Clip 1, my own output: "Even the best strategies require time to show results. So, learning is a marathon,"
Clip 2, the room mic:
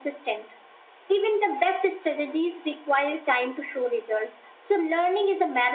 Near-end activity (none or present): none